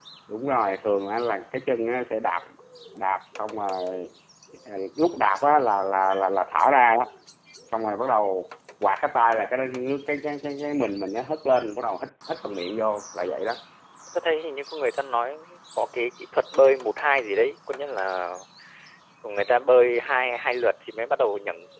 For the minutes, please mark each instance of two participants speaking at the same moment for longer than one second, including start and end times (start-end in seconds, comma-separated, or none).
none